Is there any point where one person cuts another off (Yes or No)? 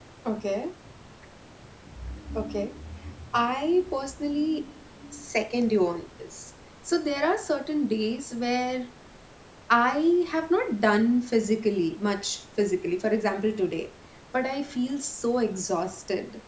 No